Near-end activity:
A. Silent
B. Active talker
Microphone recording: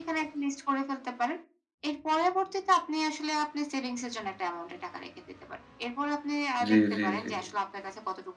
B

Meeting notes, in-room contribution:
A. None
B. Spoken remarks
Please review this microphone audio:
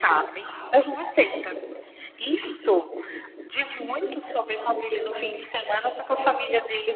A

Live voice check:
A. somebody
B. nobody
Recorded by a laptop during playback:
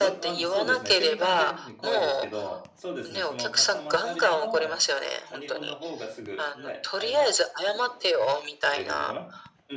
A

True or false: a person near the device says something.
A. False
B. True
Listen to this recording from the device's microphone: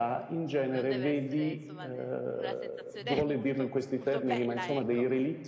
B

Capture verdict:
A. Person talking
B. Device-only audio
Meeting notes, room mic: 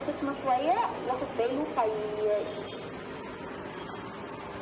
B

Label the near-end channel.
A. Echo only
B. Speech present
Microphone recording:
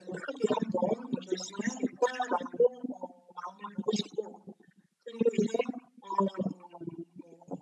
A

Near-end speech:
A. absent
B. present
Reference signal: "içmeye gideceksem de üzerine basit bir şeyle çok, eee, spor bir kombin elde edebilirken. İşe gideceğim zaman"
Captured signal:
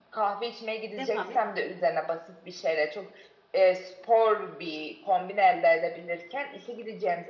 B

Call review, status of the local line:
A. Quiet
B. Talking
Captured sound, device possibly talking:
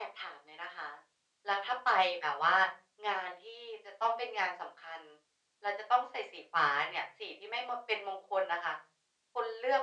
A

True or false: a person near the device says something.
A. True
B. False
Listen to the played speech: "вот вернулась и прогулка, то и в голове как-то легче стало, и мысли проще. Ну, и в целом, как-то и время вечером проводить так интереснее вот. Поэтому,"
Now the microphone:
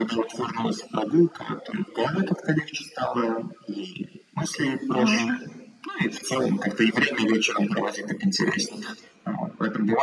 A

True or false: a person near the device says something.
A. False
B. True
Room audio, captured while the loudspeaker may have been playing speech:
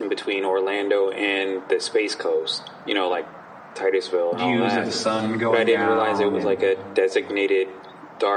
B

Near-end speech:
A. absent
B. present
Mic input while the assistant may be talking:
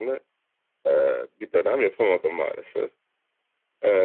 A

